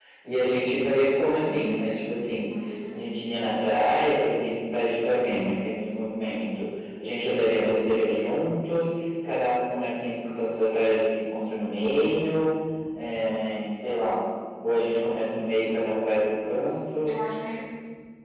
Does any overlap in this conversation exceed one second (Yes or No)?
No